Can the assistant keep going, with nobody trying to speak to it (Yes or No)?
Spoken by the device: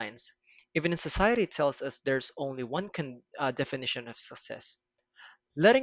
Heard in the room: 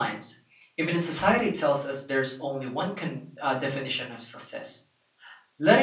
Yes